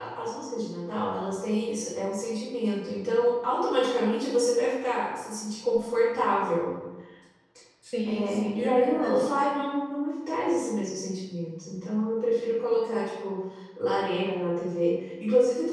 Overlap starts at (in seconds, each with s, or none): 8.1 s